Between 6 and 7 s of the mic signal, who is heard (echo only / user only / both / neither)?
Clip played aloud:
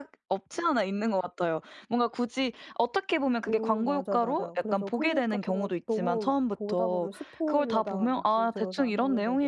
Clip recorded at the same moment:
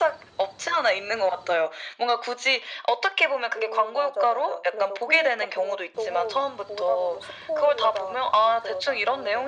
echo only